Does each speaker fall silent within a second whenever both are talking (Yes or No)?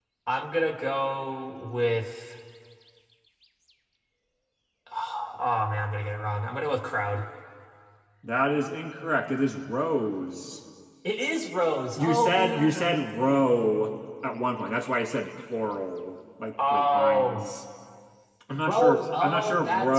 No